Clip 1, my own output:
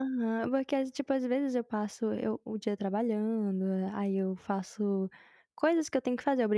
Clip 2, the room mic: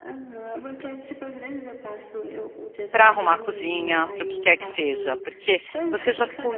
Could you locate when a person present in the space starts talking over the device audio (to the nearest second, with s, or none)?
3 s